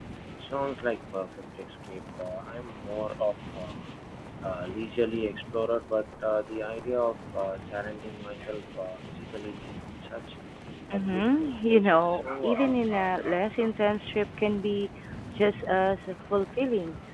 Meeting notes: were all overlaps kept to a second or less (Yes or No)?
No